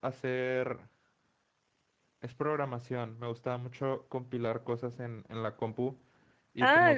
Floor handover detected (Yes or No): Yes